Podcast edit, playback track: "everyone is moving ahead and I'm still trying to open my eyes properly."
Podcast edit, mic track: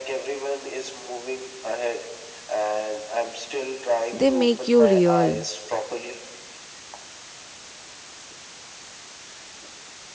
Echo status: present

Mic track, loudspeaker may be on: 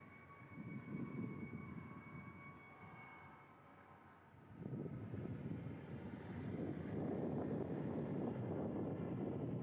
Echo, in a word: none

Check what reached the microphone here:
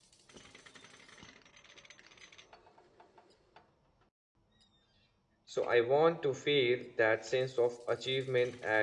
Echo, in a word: none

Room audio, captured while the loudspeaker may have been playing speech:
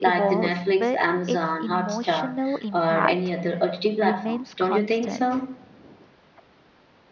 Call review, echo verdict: present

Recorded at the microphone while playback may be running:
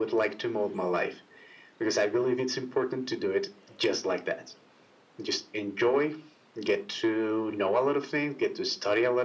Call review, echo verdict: present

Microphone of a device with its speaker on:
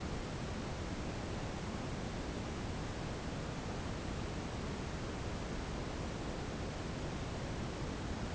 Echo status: none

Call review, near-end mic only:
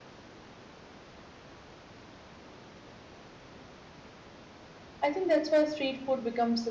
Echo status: none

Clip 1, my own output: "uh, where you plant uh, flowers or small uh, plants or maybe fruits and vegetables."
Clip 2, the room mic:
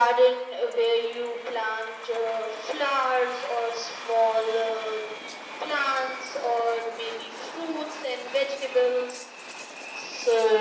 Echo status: present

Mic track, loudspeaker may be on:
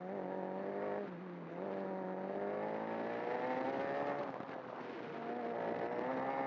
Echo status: none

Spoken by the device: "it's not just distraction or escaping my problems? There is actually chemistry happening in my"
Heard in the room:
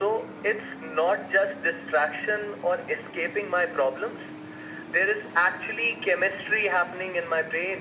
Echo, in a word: present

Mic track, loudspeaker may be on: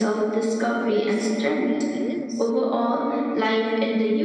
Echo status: present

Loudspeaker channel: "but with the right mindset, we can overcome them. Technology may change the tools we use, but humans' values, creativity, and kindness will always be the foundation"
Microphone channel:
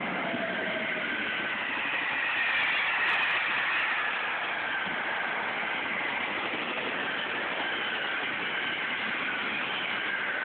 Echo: none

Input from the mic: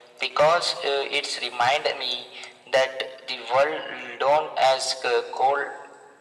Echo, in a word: present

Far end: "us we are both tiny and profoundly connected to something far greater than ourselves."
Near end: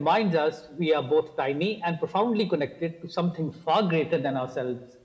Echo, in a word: present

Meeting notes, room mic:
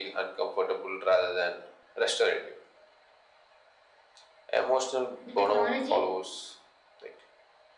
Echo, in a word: present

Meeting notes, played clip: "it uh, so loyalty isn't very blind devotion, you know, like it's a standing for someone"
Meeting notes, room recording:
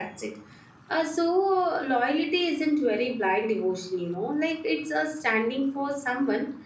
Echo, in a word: present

